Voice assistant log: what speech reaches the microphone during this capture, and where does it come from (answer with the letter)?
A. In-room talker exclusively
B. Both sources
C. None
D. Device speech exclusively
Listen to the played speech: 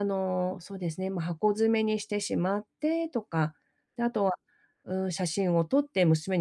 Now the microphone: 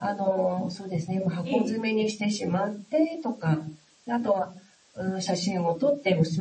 B